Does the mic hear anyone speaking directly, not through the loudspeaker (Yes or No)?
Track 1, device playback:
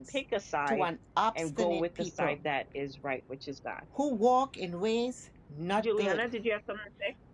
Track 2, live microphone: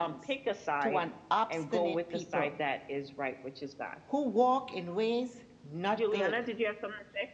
No